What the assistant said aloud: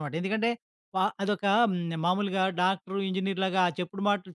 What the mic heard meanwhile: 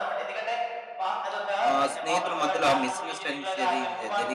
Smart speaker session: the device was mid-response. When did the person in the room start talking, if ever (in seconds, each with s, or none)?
1.7 s